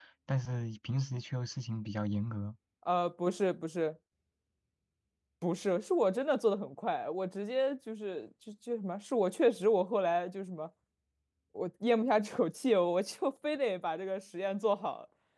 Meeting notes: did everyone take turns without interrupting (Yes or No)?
Yes